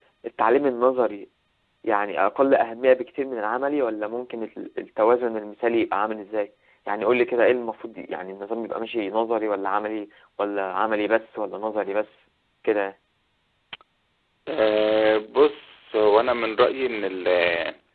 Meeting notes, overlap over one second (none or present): none